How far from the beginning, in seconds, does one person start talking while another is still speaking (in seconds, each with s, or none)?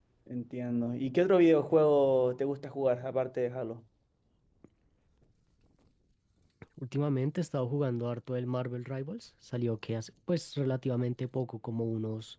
none